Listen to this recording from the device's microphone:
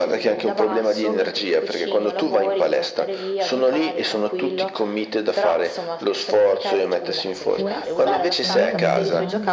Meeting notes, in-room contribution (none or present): present